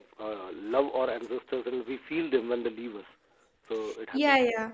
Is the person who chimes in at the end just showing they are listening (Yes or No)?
No